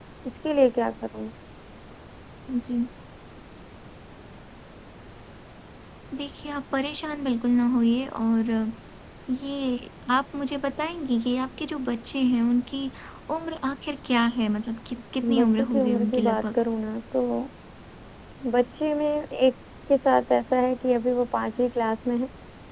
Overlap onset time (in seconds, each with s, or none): 15.2 s